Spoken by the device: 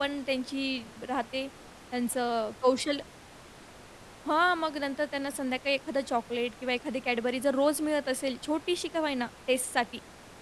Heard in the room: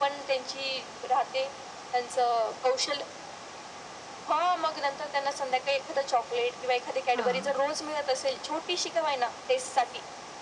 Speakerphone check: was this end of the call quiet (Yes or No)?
No